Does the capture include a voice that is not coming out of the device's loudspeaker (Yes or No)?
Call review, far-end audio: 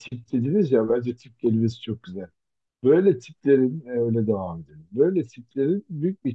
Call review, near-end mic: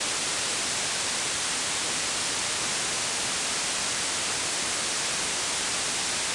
No